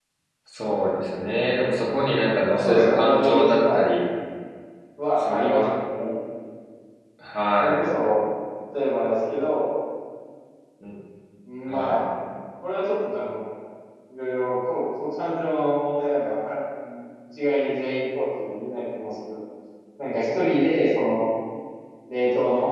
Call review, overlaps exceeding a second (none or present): present